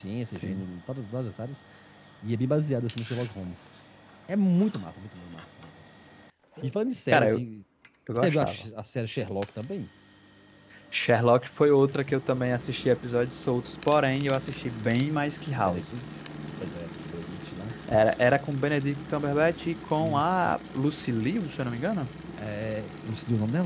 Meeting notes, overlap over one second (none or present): none